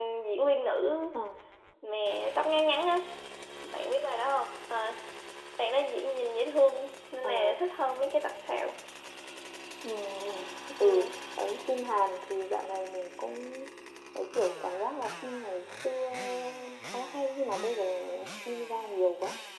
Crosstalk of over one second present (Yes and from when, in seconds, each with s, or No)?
No